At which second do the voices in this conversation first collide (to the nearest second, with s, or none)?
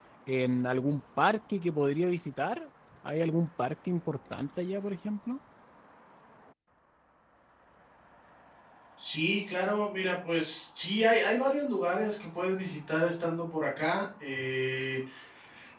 none